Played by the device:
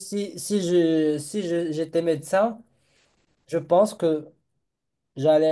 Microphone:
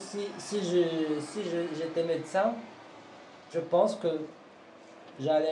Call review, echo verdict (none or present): present